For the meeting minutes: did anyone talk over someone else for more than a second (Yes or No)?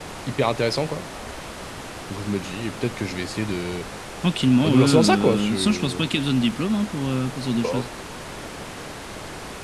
Yes